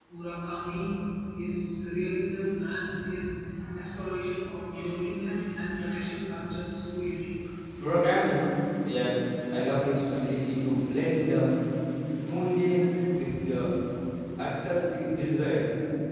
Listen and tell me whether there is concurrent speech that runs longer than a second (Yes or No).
No